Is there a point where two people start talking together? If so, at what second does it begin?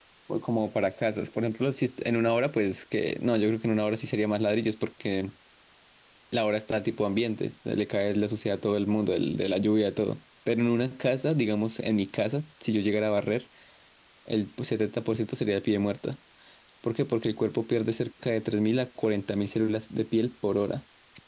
none

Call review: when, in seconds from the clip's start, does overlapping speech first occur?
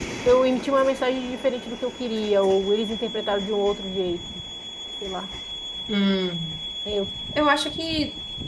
none

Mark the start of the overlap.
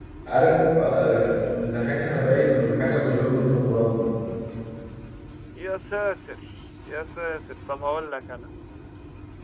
none

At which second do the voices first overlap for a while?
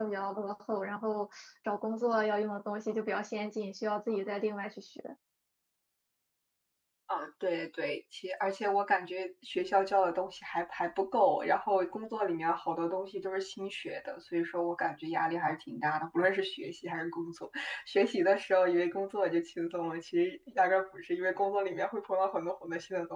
none

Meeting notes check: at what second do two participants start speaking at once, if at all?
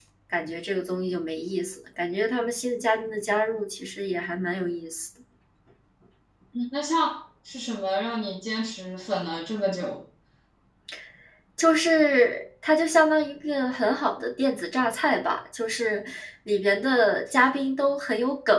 none

